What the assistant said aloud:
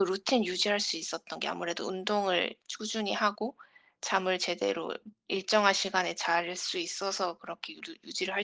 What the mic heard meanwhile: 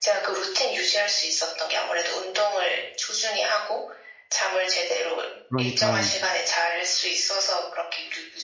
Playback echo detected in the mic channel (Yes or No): Yes